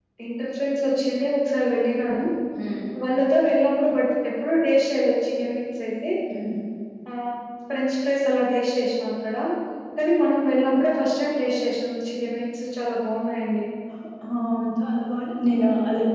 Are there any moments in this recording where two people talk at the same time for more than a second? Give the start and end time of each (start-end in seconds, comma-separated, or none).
none